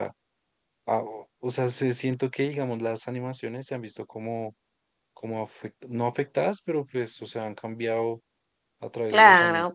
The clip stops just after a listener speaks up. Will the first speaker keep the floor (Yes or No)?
No